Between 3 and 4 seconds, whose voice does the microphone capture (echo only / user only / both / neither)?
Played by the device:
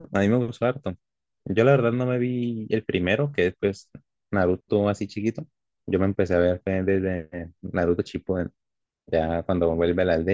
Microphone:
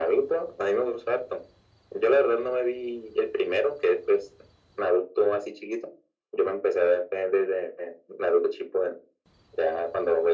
echo only